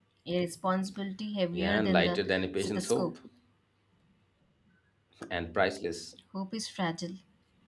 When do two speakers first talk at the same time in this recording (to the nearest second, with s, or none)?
2 s